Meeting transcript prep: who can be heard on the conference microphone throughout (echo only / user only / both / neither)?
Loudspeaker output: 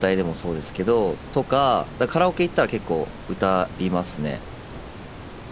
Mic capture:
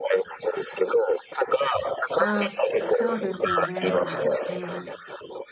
both